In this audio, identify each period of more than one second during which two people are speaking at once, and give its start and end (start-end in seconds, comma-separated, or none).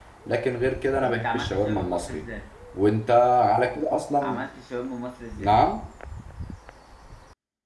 1.0-2.2